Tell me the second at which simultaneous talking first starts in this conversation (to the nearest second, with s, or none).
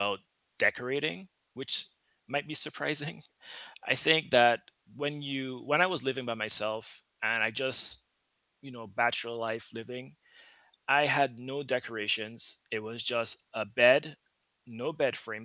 none